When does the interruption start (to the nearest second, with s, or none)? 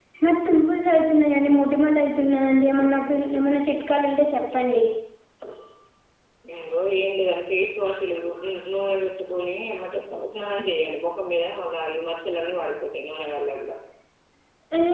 none